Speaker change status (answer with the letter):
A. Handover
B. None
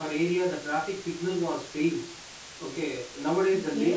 B